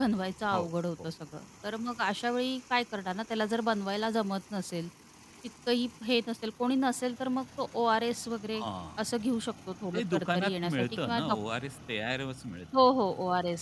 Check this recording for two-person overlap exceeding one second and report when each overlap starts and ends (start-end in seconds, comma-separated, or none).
9.9-11.2